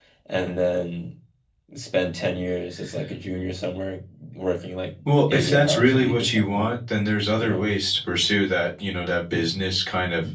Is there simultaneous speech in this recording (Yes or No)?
Yes